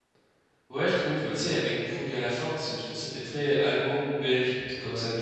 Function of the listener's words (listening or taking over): taking over